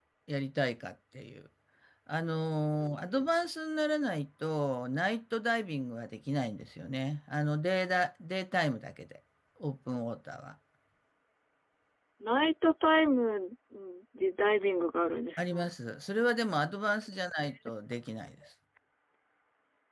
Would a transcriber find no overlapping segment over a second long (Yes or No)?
Yes